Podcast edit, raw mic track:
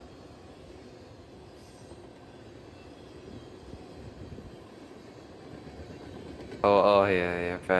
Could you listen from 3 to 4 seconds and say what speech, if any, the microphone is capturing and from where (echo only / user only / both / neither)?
neither